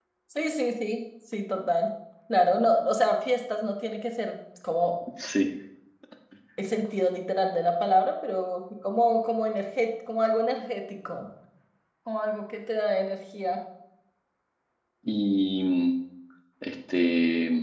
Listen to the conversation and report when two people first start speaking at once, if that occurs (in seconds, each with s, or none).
none